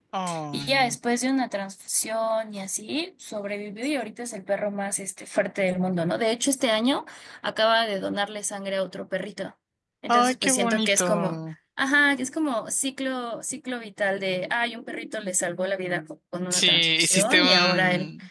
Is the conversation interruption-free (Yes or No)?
No